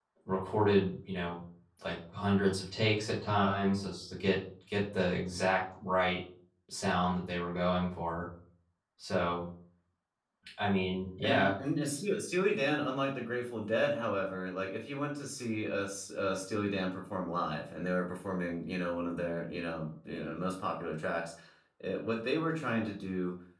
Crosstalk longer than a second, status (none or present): none